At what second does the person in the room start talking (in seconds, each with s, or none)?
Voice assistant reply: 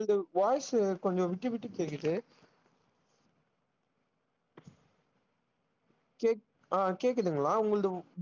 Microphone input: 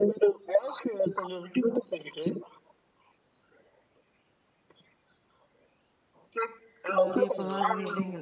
7.0 s